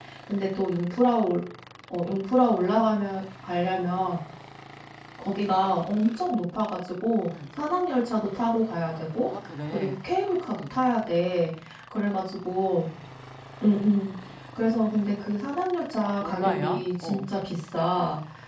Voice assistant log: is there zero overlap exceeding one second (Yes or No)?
No